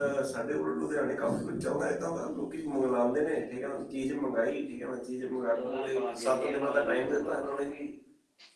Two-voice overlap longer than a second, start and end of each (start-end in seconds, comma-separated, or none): 5.5-7.6